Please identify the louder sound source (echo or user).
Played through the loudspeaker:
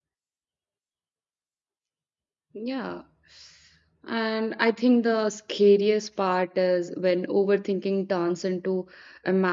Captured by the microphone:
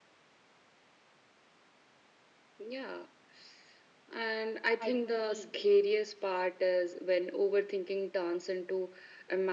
echo